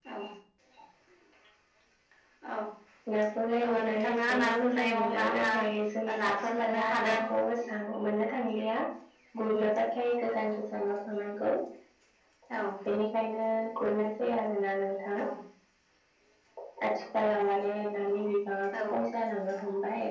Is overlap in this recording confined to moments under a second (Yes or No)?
No